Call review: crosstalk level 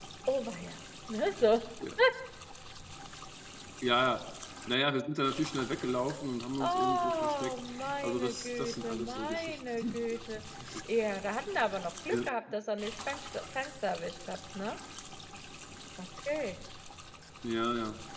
present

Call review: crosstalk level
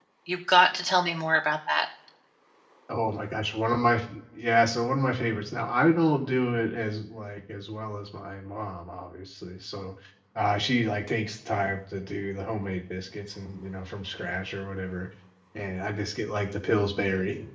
none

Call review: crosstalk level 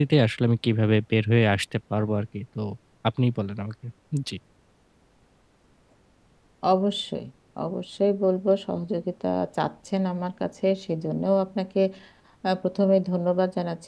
none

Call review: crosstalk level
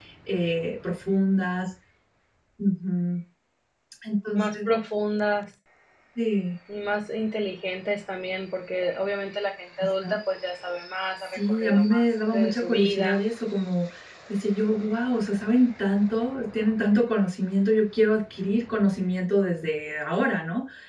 present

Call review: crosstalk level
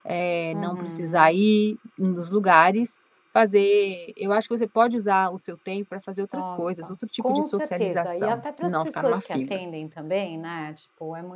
present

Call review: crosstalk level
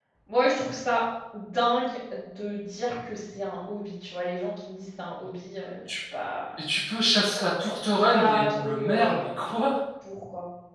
present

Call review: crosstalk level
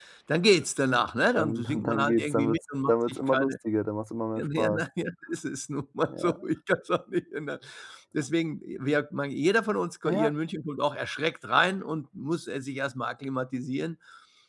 present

